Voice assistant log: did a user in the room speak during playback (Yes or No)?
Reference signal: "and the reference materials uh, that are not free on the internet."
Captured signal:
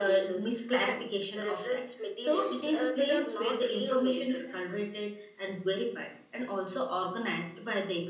Yes